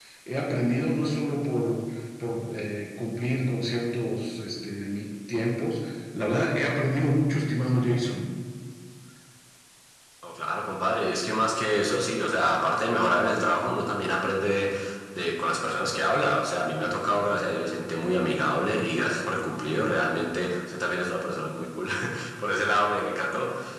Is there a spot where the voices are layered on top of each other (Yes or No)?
No